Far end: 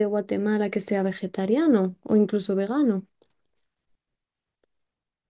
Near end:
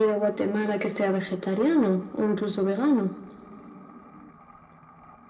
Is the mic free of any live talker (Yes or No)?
Yes